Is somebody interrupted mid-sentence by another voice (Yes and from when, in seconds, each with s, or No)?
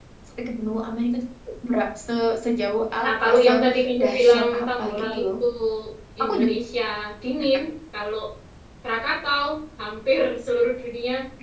Yes, from 3.0 s